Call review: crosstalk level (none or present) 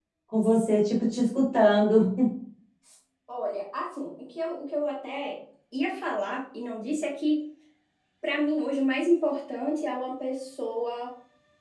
none